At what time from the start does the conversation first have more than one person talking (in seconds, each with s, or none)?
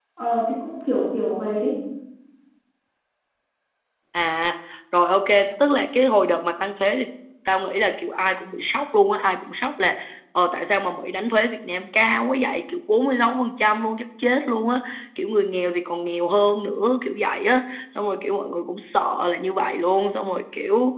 none